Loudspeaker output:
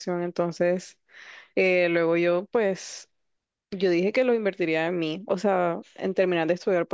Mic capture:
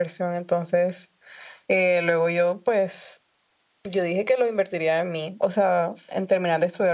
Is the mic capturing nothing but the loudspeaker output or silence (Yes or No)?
Yes